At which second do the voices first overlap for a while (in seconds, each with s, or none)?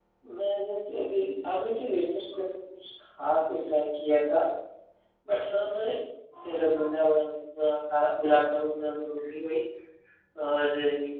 none